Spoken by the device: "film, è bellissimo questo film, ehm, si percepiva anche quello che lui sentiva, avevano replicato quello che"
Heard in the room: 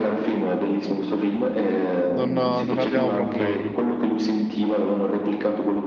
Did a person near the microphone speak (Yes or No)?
Yes